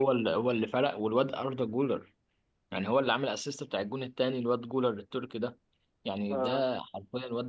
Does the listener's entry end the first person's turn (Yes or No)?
No